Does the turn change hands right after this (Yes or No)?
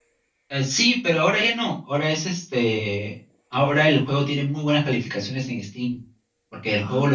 No